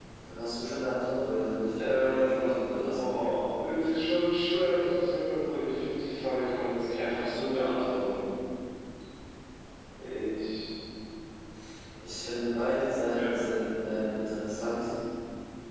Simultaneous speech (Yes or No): Yes